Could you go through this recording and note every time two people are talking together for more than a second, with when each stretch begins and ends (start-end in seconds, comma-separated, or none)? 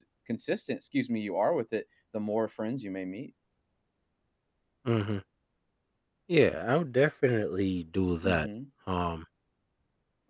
none